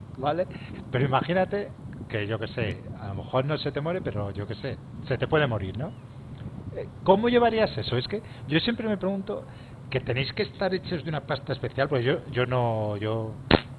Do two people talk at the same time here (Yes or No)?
No